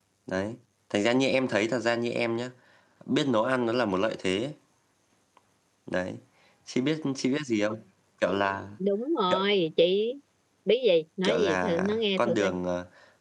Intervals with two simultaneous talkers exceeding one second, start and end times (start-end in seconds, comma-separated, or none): 11.2-12.5